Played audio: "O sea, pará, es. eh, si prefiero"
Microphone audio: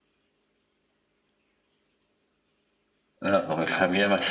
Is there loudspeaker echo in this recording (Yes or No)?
No